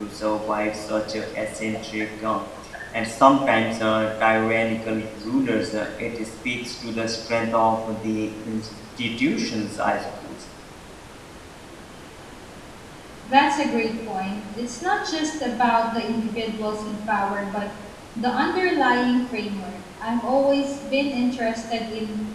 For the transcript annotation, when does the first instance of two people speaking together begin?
none

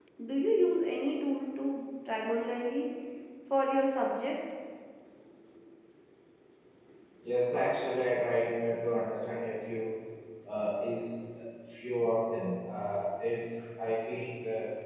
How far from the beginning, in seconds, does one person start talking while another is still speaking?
none

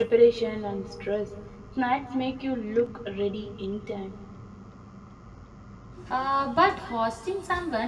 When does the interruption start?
none

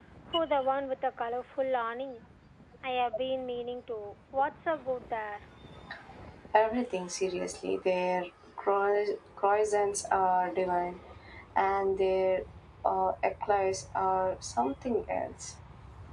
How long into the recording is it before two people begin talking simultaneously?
none

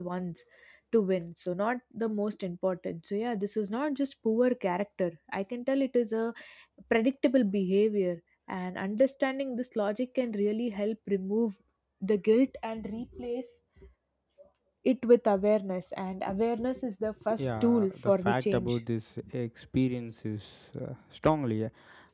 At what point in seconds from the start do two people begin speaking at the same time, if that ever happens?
17.3 s

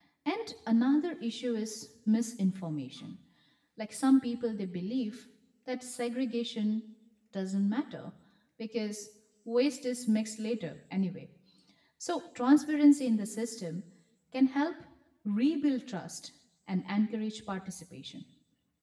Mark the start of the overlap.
none

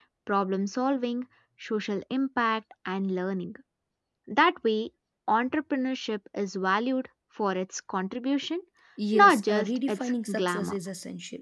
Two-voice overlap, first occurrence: 9.1 s

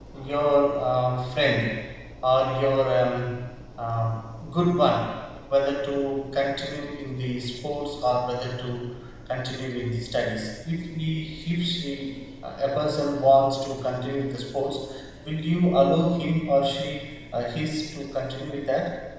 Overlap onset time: none

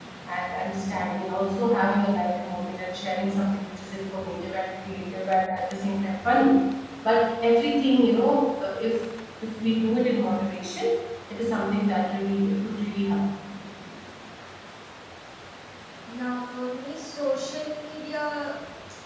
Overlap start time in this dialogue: none

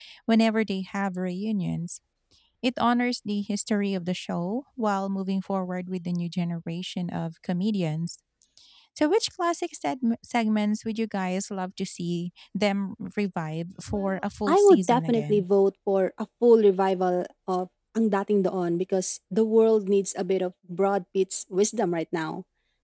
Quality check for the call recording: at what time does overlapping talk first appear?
13.9 s

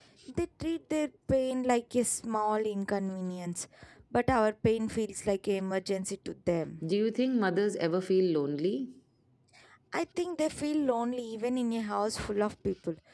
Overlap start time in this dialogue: none

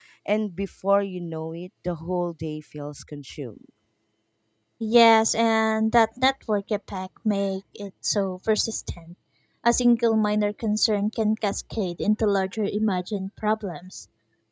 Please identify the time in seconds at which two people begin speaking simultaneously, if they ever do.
none

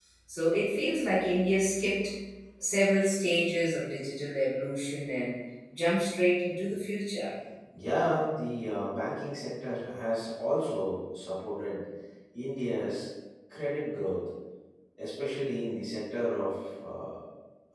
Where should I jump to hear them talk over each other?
none

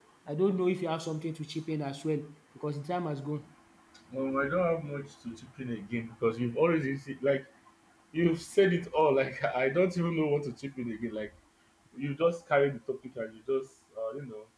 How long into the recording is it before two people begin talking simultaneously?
none

